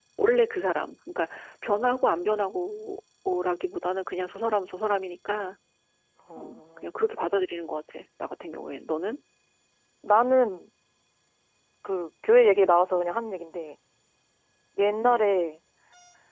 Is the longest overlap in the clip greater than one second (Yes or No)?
No